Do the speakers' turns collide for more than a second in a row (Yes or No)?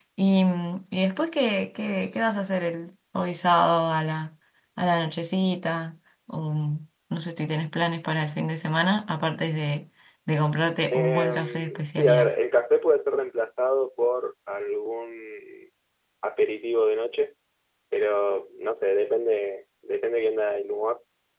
Yes